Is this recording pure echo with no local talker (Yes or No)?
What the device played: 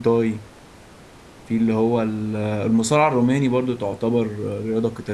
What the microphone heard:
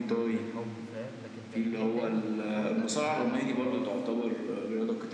No